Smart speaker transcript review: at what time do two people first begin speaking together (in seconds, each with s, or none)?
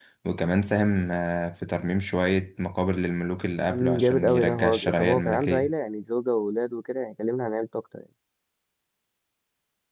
3.7 s